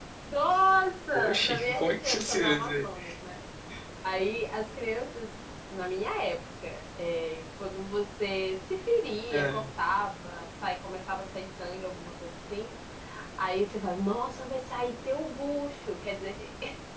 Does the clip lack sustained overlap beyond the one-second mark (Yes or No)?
No